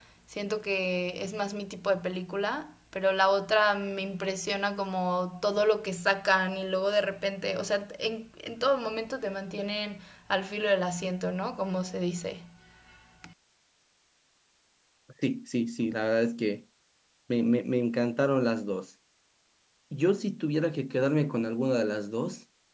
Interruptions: none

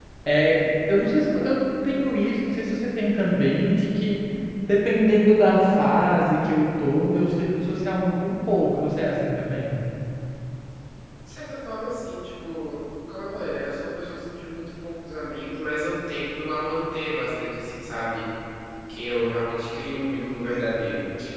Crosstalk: none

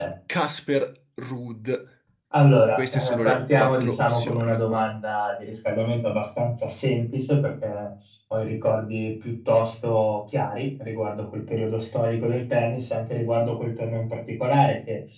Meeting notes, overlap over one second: present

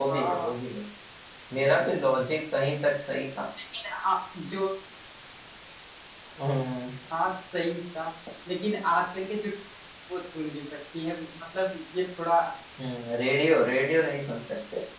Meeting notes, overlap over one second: none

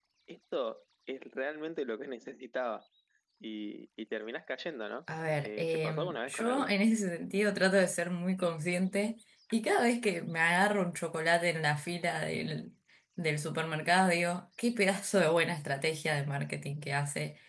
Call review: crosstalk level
present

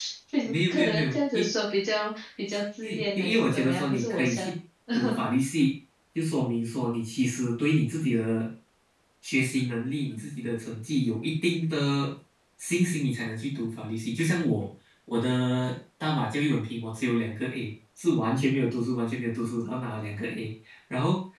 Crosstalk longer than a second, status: present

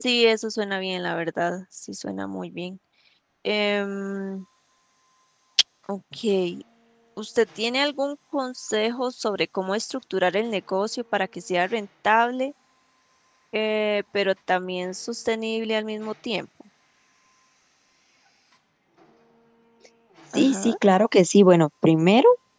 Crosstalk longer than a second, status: none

